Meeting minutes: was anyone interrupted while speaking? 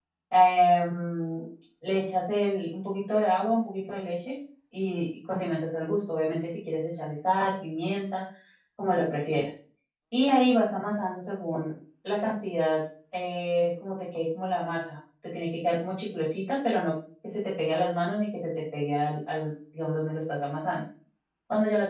No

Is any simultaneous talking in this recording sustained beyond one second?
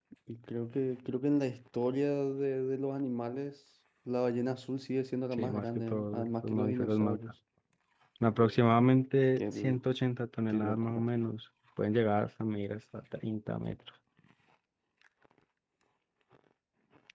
Yes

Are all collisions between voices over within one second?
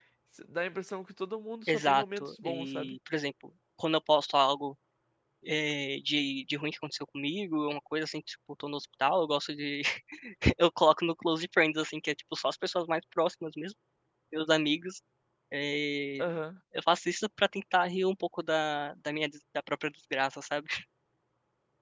No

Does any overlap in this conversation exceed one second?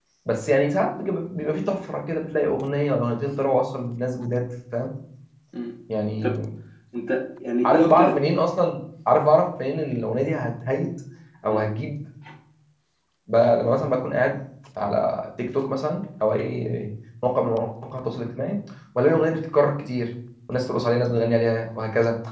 No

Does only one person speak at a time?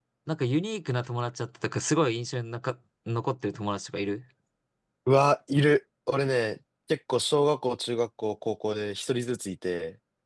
Yes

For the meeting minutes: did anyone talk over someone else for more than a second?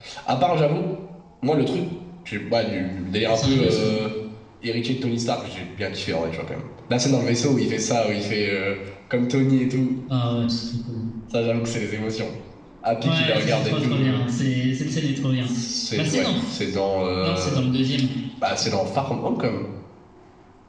Yes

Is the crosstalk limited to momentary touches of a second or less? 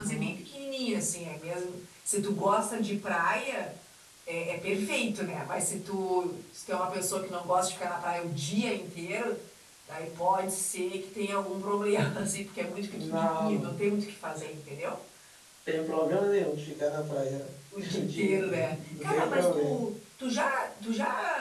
No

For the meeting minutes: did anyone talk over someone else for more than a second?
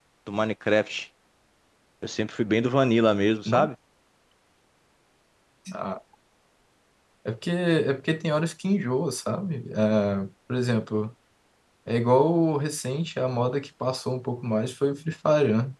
No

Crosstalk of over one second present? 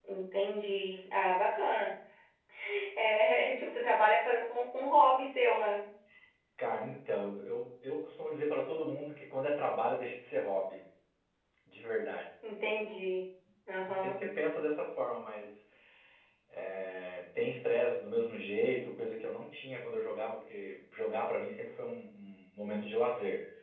No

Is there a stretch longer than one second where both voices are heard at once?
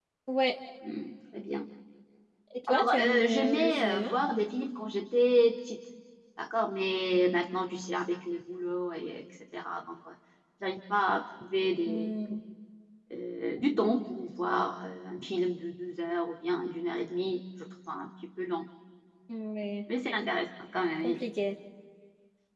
Yes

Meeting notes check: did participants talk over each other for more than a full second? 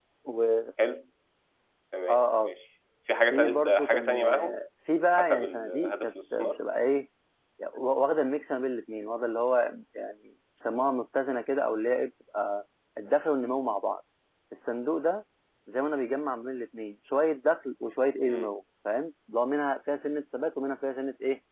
Yes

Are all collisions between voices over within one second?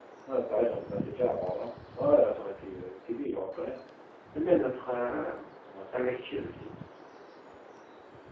Yes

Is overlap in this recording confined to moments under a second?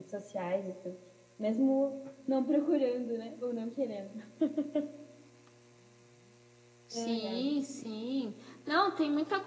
Yes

